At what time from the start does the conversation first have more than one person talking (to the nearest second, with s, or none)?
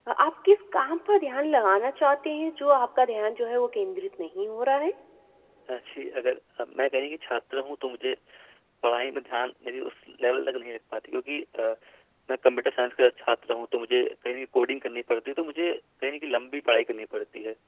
none